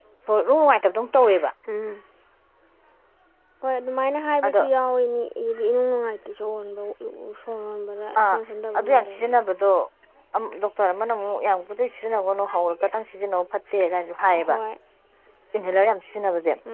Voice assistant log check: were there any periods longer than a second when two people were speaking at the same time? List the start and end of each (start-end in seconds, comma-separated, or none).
none